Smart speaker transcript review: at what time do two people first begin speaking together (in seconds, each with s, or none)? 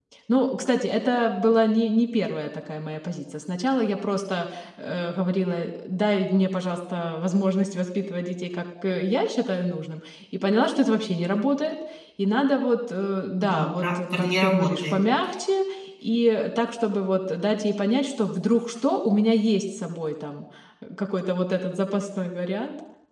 13.4 s